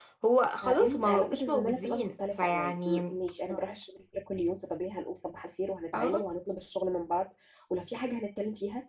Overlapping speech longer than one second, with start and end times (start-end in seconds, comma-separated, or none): 0.6-3.2